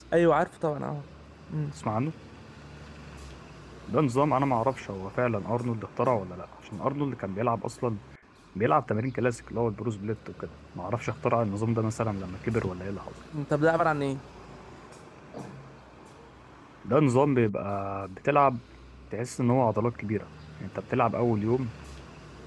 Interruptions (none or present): none